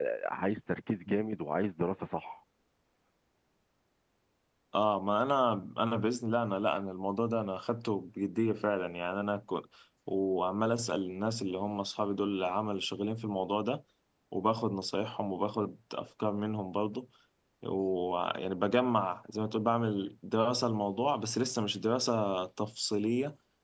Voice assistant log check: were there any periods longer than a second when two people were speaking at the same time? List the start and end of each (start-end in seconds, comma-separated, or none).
none